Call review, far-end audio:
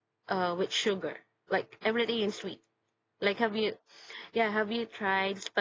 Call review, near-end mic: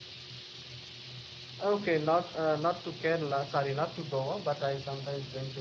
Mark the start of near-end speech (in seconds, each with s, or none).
1.6 s